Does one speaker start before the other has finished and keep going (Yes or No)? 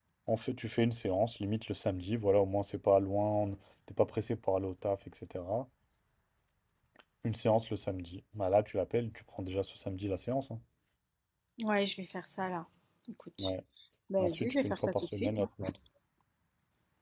Yes